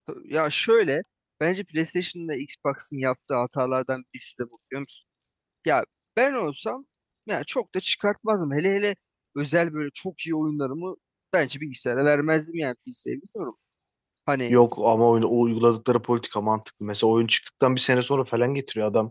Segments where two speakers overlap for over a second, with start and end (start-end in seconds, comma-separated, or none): none